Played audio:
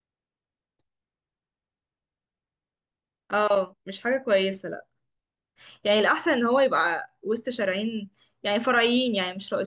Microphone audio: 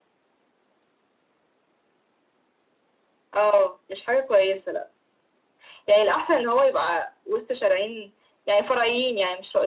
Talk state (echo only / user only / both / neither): echo only